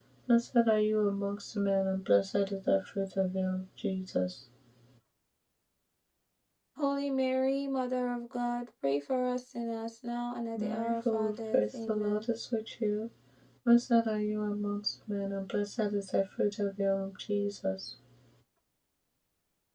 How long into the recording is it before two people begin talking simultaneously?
10.6 s

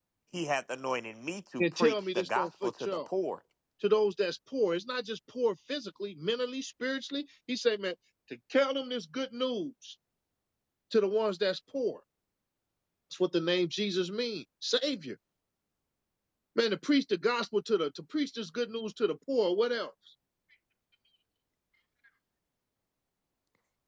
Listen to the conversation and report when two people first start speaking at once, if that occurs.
1.6 s

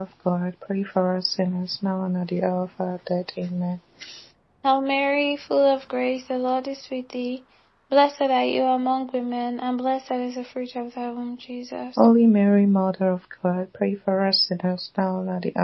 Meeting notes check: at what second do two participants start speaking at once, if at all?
none

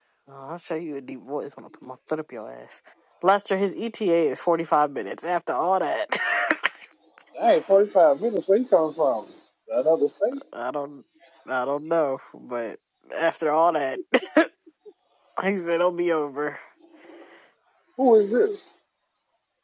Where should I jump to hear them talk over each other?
none

